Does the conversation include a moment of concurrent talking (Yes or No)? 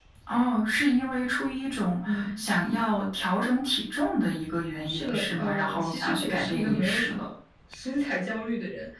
Yes